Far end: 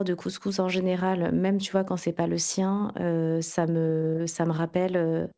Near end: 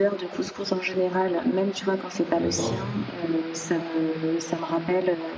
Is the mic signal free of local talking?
No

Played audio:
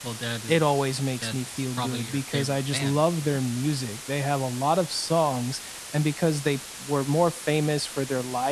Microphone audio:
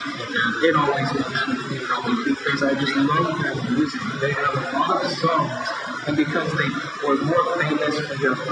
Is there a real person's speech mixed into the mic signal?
No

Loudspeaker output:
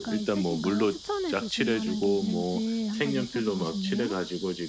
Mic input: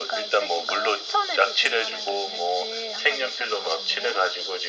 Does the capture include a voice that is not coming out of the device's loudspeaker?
No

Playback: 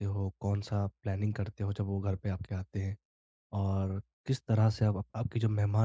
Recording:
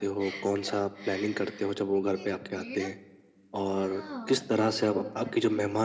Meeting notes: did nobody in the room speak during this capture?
No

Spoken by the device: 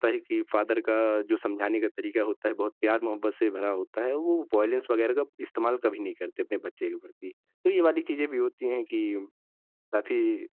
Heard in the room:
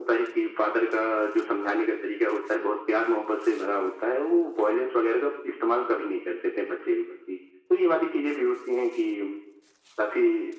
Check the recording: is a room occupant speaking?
No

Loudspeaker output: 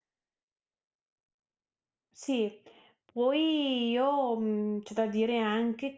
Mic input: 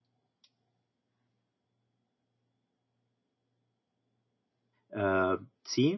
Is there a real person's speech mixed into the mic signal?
Yes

